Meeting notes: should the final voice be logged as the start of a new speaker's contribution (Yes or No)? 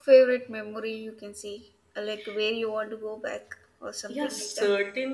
Yes